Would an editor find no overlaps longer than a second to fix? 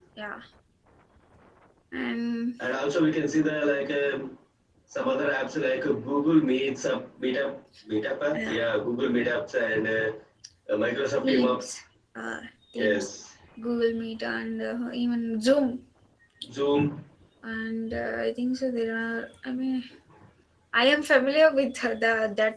Yes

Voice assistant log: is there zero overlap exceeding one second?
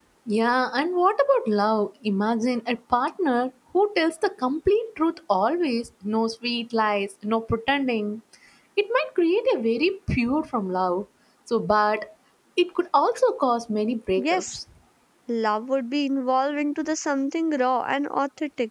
Yes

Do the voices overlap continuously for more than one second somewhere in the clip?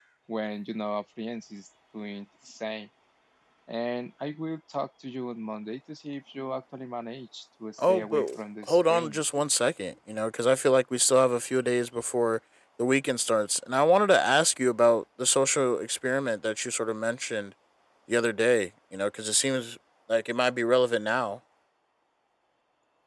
Yes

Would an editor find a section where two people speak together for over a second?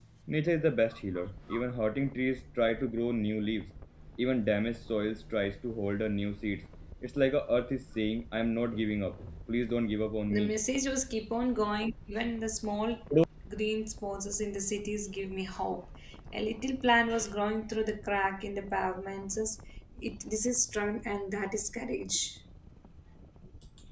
No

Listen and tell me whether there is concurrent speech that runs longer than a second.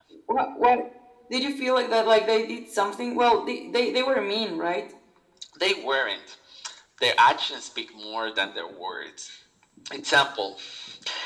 No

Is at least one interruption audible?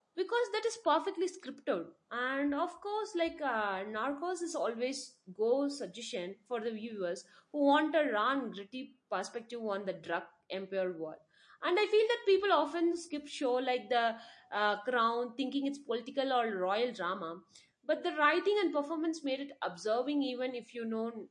No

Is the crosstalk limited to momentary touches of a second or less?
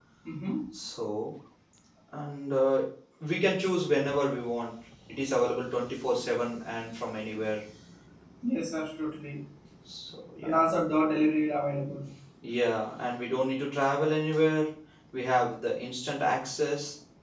Yes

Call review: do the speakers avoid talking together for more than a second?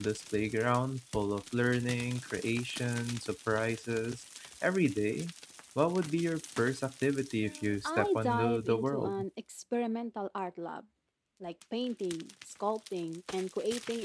No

